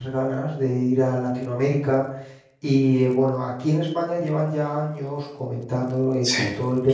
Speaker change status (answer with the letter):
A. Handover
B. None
B